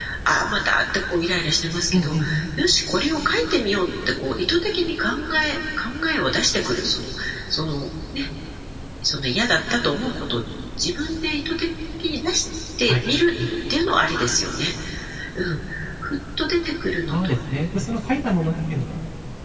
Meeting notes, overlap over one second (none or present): none